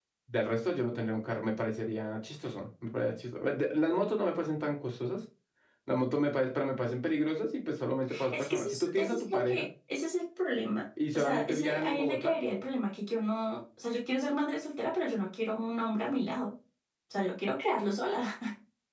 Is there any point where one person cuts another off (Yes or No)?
Yes